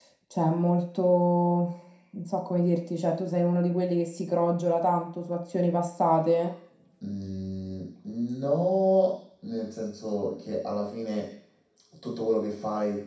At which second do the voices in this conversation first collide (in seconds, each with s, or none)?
none